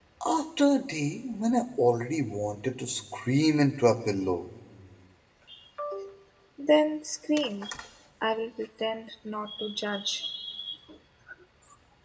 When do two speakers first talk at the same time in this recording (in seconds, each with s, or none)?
none